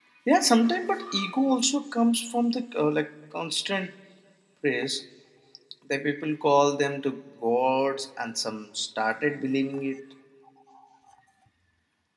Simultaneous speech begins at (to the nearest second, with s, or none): none